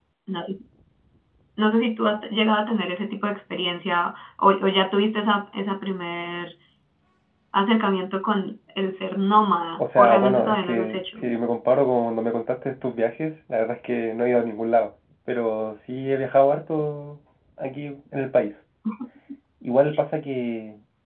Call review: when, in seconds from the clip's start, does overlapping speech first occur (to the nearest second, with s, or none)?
10 s